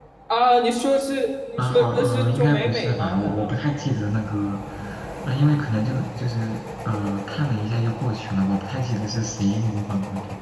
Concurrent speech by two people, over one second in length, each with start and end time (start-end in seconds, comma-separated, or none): 1.6-3.5